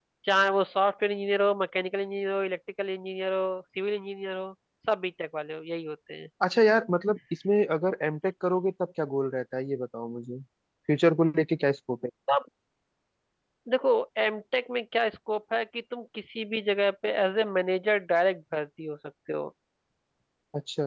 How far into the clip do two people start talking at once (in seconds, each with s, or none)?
none